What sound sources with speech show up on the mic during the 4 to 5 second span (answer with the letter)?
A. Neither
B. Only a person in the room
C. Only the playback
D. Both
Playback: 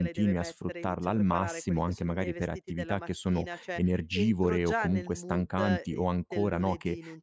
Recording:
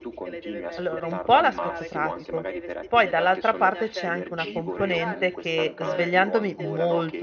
D